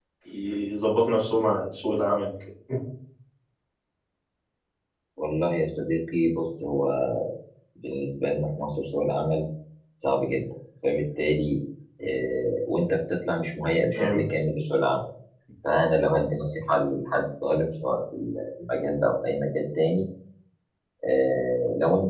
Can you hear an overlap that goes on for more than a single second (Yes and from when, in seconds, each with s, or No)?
No